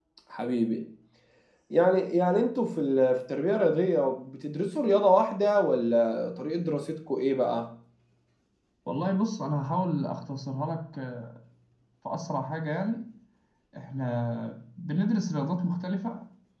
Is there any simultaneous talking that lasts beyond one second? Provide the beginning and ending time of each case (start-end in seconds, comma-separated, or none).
none